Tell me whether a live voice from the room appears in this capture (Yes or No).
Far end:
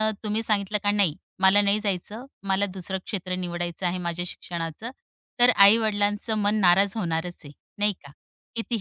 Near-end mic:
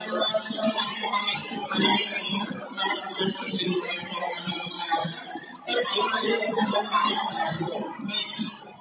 No